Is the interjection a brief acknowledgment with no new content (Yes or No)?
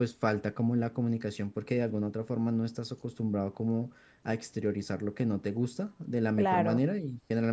Yes